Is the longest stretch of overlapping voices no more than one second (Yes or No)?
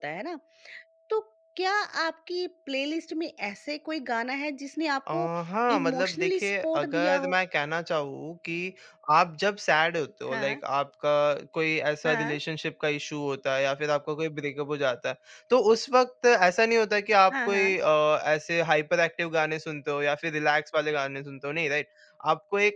No